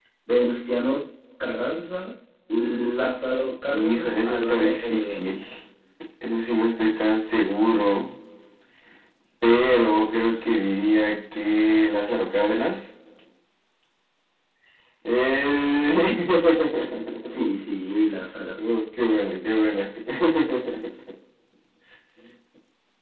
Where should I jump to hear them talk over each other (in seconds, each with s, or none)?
3.7 s